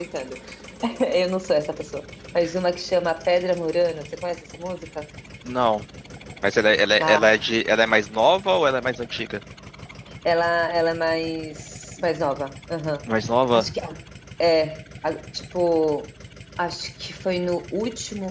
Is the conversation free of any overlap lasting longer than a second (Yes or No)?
Yes